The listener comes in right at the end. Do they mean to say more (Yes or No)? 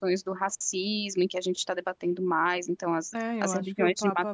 Yes